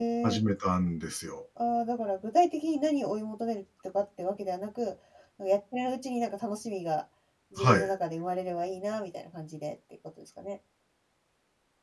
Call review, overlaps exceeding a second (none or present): none